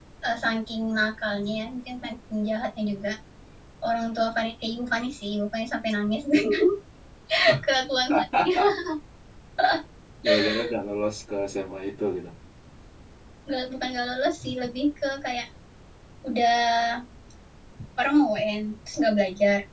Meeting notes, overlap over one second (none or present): none